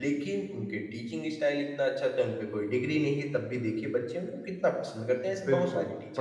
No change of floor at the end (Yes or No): No